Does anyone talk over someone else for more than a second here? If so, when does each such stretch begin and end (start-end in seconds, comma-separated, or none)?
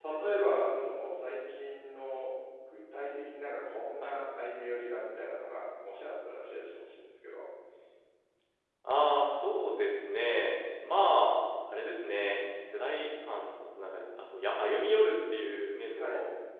none